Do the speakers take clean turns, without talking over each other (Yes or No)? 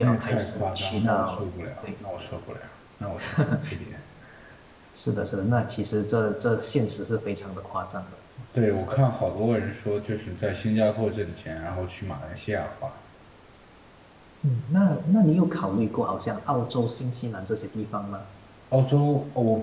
No